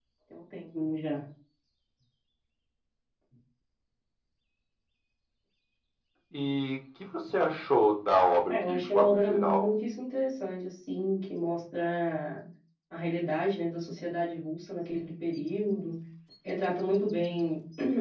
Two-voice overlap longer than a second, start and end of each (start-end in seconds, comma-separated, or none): 8.5-9.7